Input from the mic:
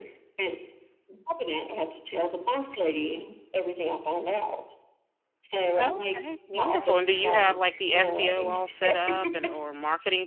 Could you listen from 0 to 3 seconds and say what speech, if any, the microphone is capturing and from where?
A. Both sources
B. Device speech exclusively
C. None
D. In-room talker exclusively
B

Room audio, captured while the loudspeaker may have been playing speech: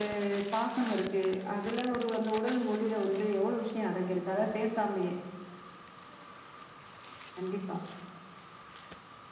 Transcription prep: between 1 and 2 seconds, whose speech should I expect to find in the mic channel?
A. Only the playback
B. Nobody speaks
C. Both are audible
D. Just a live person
A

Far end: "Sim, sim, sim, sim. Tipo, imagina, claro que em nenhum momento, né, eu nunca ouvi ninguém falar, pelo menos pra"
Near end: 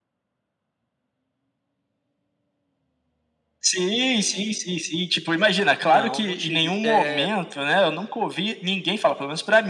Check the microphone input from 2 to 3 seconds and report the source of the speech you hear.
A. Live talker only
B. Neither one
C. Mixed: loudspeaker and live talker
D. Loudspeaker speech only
B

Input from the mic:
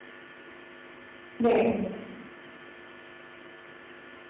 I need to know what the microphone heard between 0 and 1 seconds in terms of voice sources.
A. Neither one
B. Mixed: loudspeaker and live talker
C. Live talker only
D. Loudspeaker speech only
A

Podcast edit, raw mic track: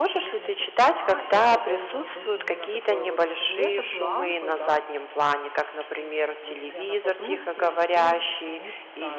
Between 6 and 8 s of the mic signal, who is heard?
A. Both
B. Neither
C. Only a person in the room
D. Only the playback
A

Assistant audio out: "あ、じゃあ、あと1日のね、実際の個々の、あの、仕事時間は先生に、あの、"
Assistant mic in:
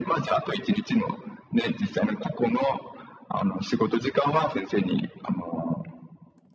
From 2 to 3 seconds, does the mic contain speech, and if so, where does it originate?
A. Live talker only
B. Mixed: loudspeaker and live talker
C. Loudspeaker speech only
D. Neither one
C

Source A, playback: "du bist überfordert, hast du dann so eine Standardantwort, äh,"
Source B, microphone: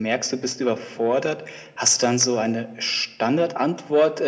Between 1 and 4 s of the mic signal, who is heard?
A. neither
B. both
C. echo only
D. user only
C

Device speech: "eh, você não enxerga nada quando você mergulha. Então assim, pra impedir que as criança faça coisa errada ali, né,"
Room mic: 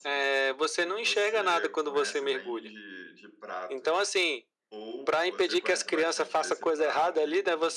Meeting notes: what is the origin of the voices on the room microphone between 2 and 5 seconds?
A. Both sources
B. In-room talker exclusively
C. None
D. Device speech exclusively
A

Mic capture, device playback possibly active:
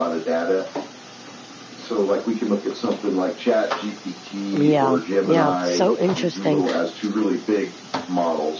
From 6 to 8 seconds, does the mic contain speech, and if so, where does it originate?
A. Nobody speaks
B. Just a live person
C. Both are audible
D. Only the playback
C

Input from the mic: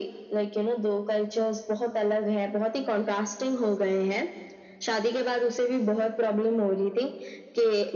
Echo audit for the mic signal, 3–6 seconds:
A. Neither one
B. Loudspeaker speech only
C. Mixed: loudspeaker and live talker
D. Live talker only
B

